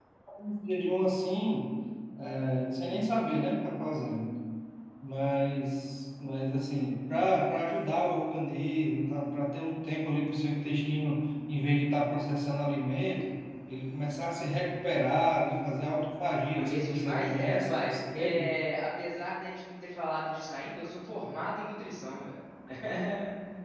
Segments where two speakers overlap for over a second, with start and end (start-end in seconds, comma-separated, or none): 16.5-18.5